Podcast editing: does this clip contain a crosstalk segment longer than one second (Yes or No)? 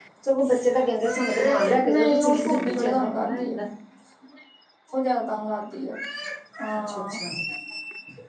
Yes